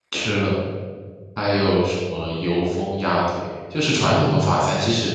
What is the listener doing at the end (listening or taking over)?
listening